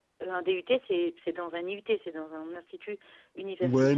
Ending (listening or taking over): taking over